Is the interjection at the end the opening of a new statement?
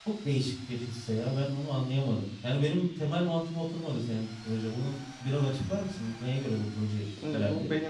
Yes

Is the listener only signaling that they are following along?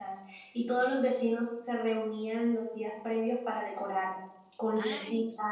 Yes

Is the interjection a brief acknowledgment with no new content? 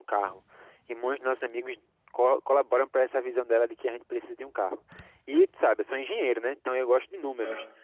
Yes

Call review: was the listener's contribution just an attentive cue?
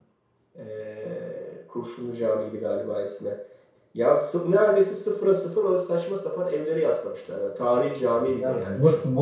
No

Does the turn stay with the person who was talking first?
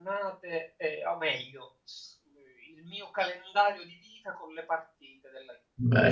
No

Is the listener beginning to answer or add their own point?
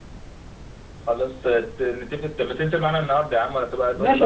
Yes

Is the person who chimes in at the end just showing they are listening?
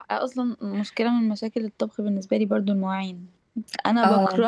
Yes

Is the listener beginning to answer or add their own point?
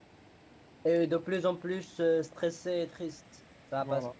No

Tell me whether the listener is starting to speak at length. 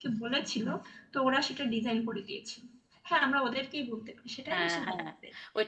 Yes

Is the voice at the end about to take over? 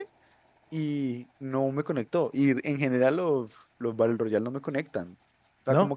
No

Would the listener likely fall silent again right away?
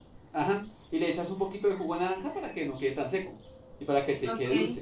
No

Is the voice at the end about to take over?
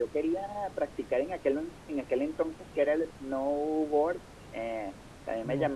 No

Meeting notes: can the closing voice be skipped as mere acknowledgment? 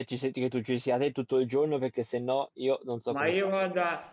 No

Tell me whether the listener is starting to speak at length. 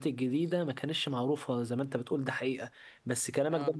No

